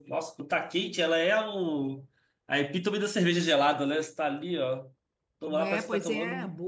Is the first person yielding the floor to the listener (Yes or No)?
Yes